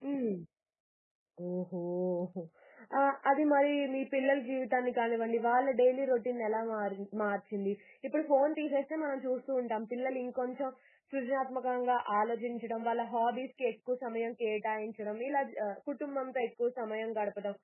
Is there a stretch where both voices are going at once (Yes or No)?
No